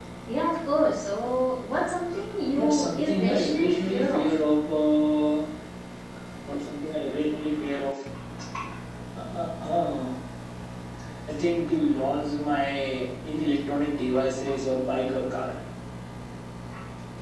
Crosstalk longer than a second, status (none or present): present